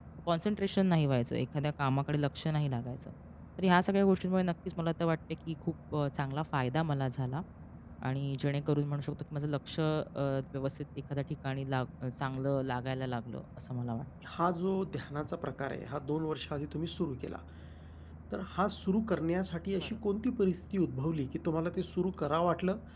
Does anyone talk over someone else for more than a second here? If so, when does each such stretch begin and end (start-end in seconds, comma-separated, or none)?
none